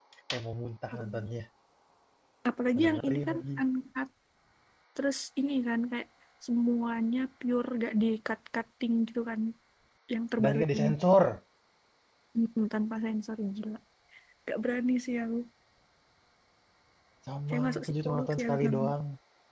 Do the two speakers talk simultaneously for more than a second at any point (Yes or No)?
Yes